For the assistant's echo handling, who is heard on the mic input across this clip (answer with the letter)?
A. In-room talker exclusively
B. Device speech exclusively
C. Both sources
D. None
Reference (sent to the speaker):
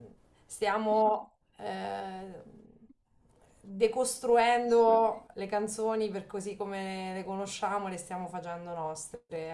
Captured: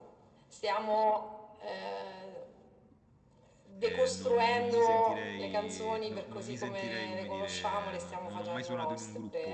C